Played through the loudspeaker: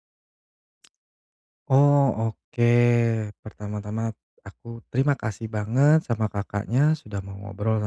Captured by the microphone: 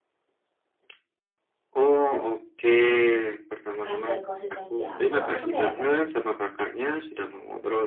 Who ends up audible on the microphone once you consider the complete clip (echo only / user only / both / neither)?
both